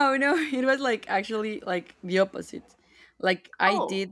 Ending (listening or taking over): listening